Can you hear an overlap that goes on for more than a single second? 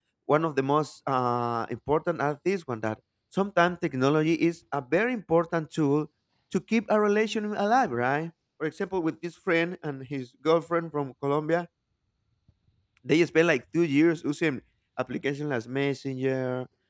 No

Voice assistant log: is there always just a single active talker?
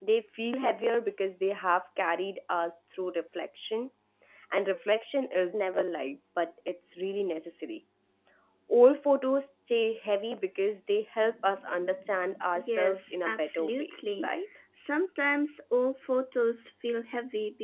No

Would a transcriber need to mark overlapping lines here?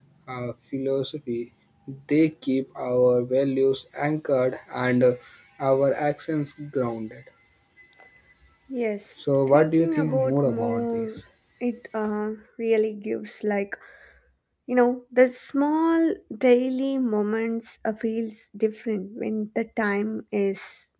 Yes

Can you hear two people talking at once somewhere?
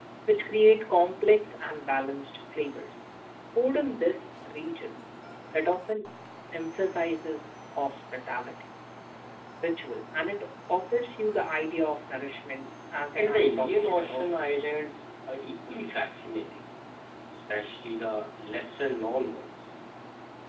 Yes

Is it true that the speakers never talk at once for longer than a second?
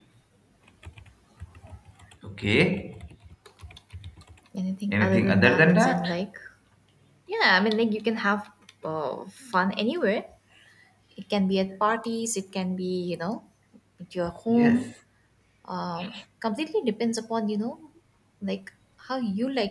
No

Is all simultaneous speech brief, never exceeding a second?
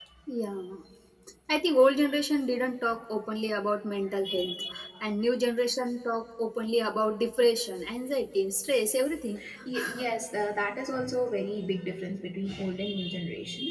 Yes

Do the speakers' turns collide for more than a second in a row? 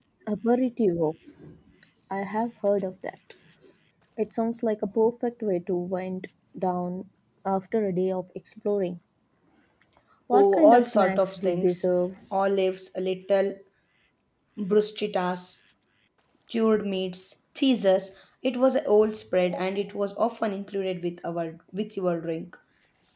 Yes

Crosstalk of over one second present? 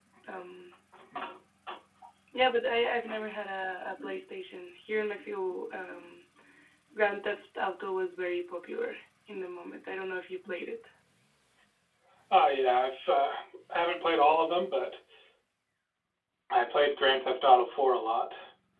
No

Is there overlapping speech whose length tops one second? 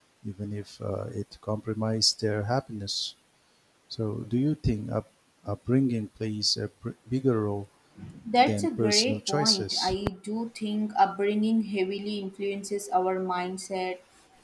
Yes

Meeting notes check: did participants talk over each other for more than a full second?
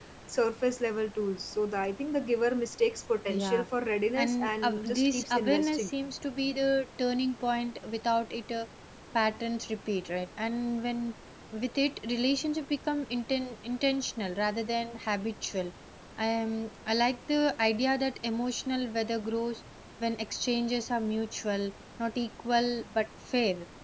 Yes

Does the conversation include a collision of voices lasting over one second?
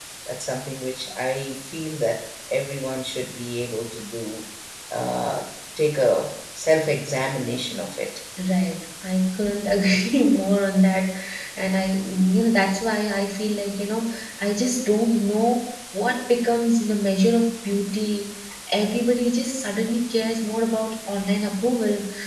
No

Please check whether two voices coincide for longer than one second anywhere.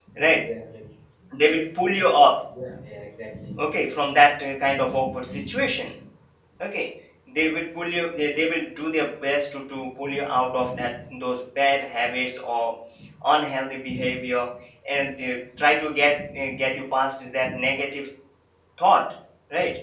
No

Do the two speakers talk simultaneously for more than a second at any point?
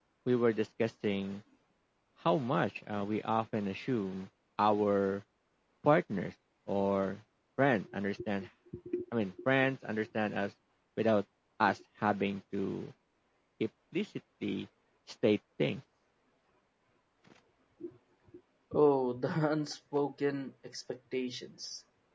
No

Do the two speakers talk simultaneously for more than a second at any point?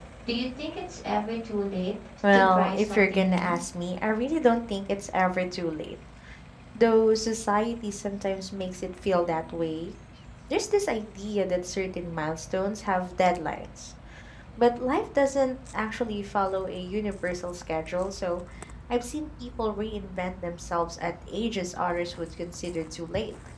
Yes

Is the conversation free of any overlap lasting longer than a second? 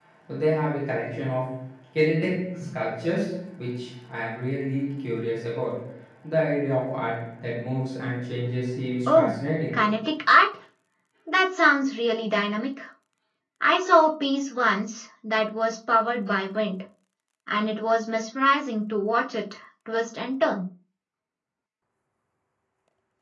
Yes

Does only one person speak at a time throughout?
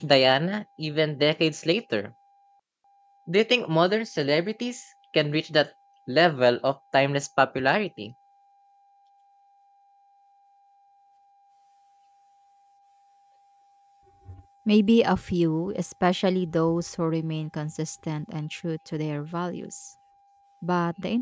Yes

